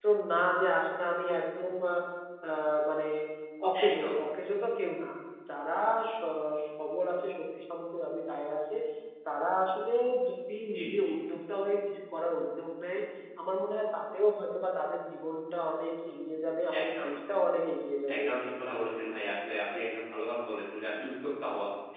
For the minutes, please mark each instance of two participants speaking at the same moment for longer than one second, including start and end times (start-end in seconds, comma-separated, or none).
none